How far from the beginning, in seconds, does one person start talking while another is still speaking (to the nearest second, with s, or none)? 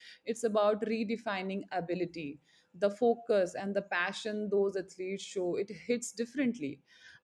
none